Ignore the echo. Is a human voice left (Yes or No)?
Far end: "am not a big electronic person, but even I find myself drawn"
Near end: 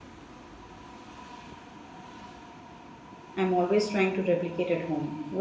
Yes